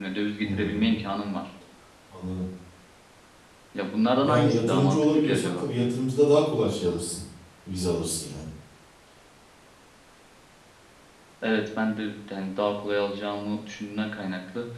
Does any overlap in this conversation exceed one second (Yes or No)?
Yes